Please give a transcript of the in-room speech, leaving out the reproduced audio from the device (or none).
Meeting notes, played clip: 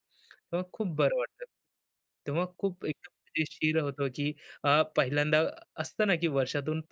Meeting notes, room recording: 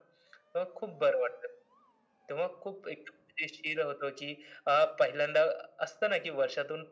none